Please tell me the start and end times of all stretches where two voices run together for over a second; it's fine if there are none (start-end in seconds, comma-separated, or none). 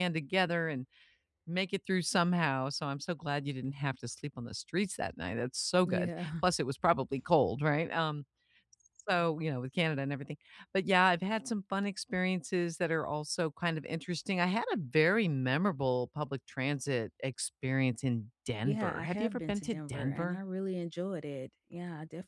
18.6-20.4